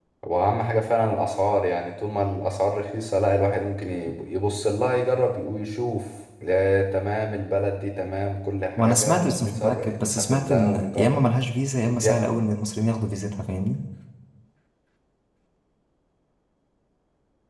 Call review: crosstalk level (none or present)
present